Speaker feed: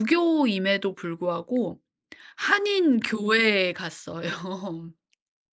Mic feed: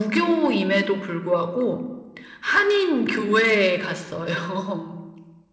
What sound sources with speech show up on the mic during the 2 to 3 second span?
echo only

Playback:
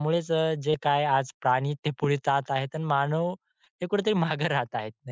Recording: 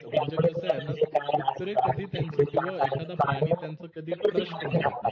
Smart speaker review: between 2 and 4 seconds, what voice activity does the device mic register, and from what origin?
both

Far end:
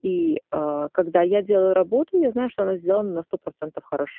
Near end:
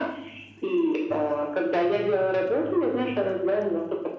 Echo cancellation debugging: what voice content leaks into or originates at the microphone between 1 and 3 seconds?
echo only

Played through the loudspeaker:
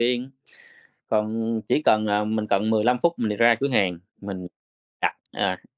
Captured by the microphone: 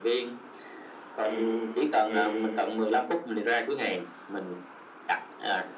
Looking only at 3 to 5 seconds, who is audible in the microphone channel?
echo only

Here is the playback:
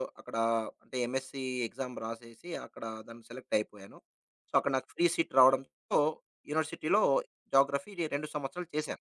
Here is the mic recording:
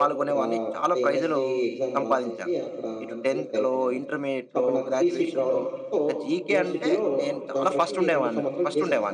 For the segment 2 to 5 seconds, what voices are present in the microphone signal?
both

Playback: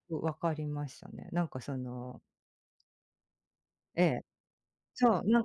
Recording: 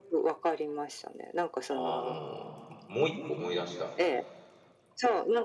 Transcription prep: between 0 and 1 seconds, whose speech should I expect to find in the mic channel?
echo only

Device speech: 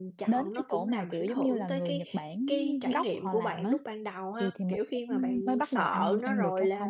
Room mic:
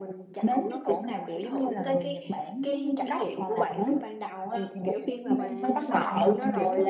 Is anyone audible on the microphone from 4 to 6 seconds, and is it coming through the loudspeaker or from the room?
both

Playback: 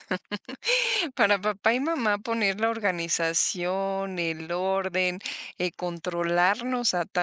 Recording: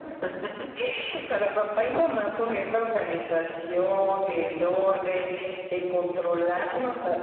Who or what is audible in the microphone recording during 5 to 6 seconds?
echo only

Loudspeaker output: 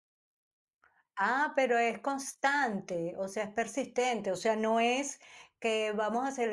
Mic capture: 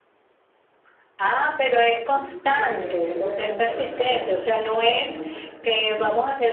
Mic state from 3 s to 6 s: both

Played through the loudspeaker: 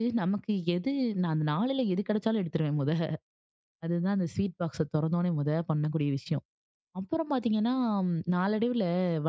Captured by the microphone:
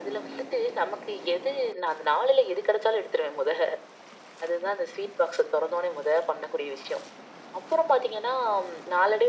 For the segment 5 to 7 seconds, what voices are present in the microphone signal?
echo only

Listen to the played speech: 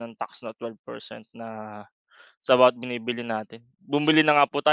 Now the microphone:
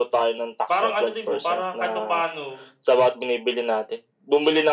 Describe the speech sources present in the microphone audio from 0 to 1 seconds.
both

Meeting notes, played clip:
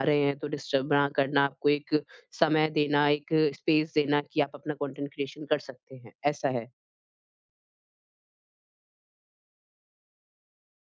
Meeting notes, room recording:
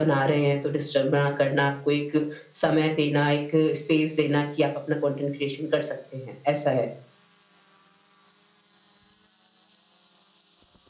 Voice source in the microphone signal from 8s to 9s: neither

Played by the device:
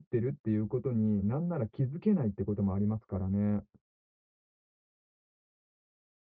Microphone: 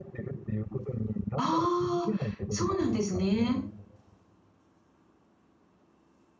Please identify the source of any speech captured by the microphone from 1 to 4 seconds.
both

